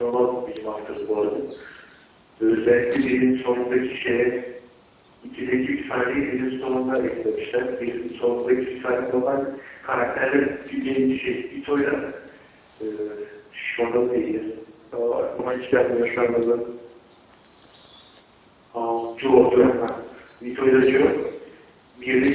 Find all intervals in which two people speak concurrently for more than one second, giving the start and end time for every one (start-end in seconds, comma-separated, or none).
none